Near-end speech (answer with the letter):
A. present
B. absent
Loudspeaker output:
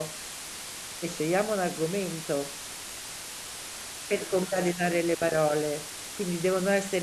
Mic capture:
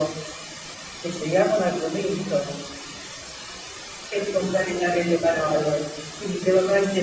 B